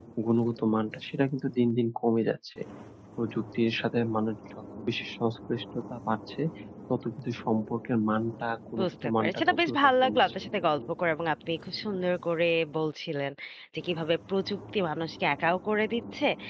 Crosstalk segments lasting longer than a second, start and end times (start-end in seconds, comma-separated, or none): 8.8-10.2